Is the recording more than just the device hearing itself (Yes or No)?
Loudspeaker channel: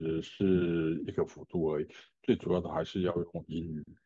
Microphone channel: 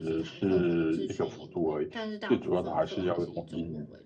Yes